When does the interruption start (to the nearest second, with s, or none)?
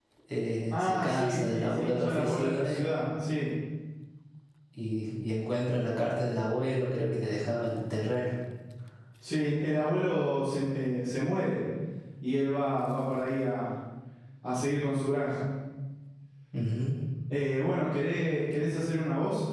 1 s